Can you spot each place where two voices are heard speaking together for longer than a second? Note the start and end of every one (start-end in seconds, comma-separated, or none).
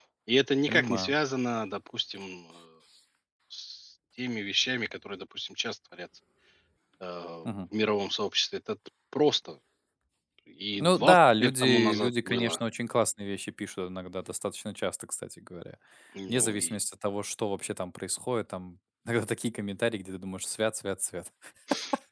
10.8-12.6